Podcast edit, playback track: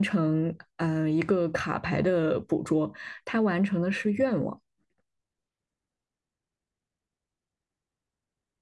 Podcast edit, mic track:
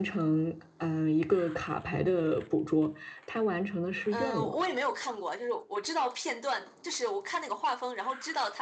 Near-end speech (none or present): present